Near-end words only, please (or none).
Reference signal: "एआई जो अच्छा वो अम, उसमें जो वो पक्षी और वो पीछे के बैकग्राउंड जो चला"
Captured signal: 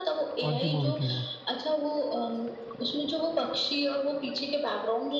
कौन सी मूवी थी वो